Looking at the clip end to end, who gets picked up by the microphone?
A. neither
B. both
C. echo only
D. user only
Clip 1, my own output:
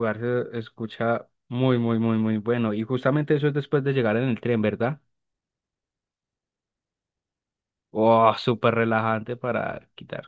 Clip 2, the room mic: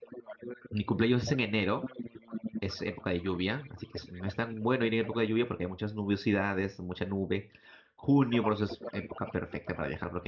B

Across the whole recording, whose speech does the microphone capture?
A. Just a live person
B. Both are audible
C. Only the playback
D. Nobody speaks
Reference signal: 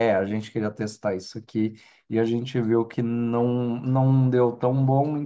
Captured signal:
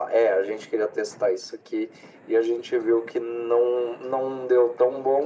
C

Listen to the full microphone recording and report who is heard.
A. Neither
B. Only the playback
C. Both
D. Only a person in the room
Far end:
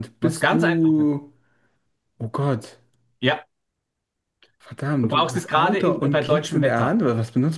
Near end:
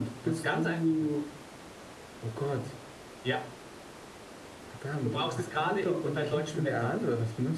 B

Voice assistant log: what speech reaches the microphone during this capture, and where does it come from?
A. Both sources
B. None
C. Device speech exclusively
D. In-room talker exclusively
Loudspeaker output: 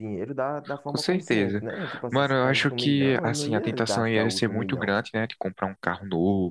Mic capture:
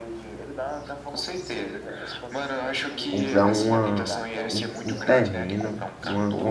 A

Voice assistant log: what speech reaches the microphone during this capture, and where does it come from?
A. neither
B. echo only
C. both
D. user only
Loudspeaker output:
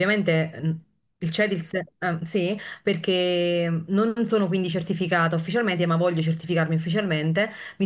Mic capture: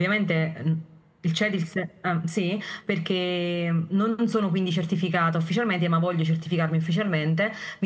B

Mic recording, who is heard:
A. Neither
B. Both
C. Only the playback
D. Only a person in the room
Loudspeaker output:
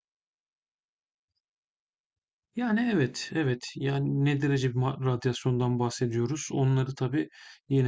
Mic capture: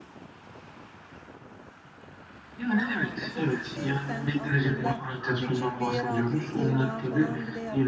B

